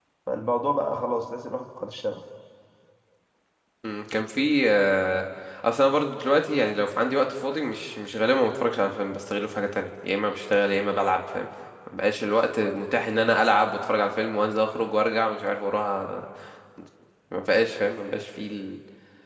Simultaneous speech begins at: none

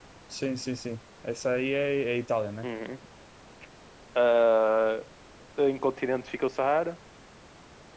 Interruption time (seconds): none

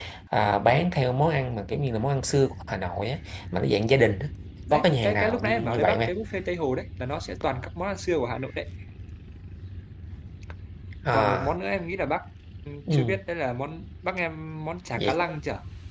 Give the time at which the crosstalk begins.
4.7 s

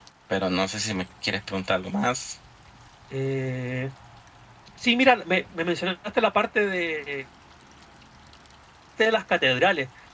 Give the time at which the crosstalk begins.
none

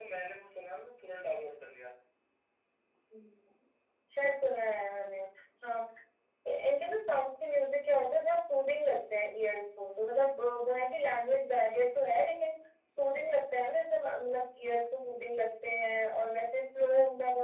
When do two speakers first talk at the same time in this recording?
none

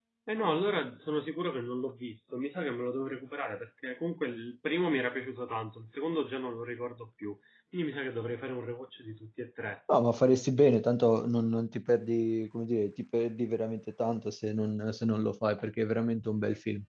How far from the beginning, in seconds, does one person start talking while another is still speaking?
none

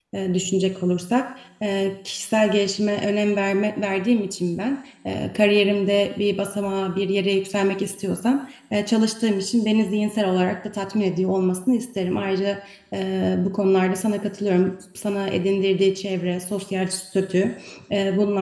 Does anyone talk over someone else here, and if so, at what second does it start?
none

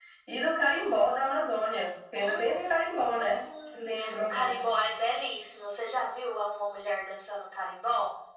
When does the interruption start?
2.1 s

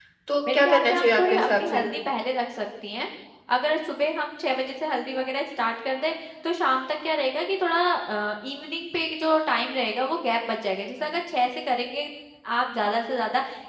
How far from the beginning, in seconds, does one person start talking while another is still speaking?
0.5 s

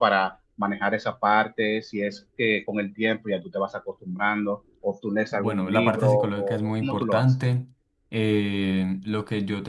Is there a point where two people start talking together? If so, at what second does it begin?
5.3 s

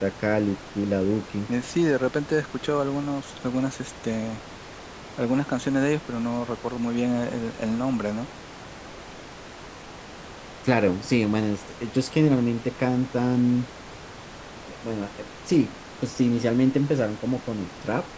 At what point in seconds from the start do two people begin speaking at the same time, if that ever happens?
none

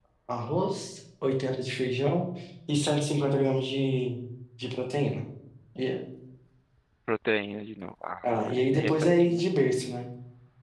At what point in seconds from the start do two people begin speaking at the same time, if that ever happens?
8.2 s

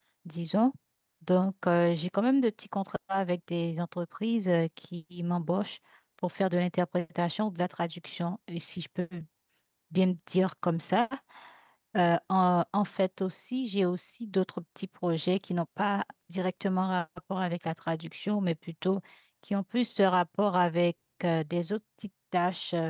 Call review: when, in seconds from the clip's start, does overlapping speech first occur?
none

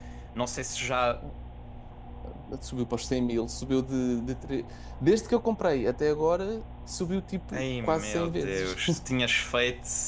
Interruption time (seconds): 7.5 s

